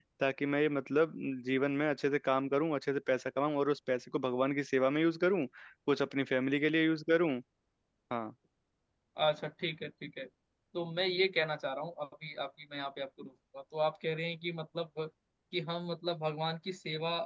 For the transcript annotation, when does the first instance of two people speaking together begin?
none

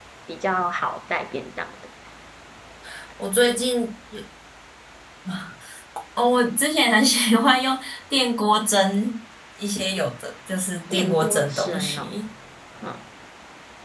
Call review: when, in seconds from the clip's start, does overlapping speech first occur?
10.9 s

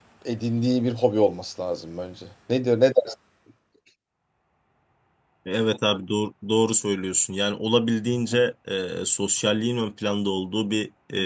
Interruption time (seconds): none

